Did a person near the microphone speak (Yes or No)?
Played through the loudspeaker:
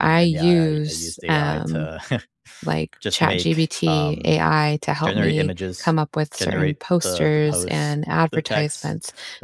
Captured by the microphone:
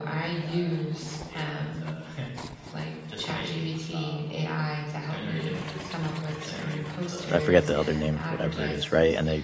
Yes